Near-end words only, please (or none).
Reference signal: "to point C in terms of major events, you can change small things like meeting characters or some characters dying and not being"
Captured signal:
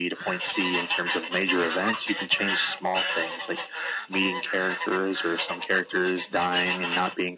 none